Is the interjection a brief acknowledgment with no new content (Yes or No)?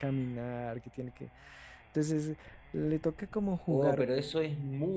No